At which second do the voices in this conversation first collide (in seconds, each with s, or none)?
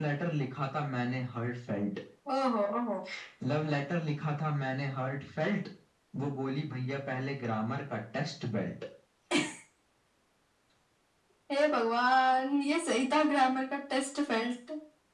none